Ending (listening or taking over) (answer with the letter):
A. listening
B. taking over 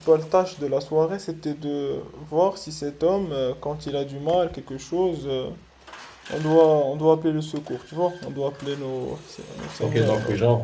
B